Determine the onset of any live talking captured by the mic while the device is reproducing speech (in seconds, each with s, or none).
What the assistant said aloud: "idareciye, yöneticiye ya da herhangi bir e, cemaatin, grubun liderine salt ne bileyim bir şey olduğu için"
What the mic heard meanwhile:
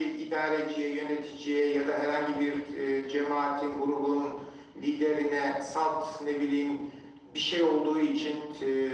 none